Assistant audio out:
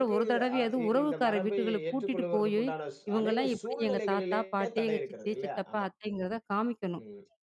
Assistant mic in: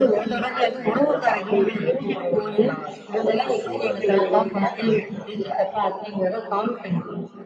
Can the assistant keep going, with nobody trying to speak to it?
No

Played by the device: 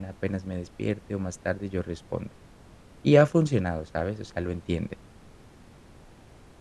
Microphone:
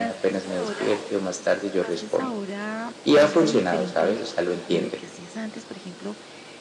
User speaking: Yes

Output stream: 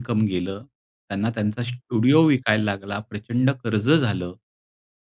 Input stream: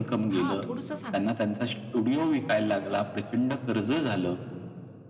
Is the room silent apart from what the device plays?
No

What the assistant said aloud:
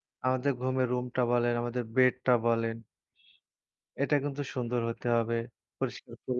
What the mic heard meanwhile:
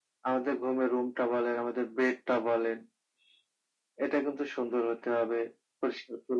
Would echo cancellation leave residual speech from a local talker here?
No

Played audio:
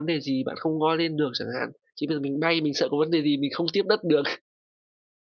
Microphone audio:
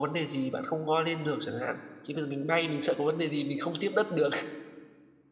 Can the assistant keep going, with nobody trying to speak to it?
Yes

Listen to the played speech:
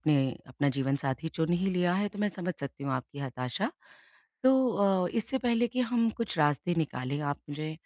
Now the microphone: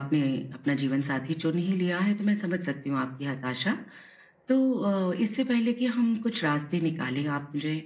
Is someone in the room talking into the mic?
No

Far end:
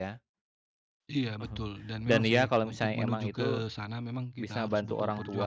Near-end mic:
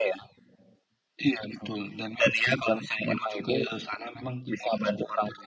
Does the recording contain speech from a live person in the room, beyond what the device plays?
No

